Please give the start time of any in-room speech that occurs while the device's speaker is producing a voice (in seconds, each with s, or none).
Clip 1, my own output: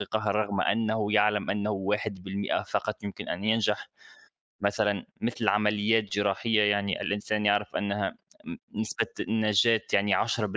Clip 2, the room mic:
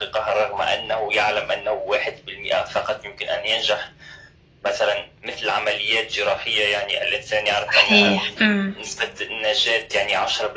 7.7 s